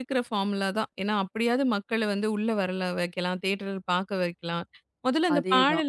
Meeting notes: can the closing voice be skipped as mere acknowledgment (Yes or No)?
Yes